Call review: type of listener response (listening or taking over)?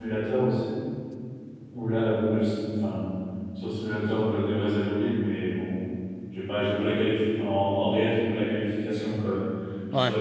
listening